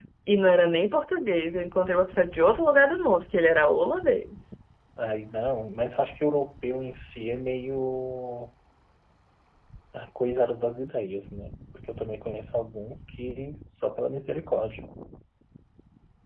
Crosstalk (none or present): none